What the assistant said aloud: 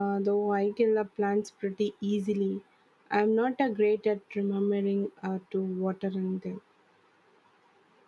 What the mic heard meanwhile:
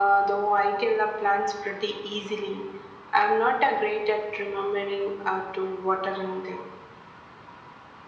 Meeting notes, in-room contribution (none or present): none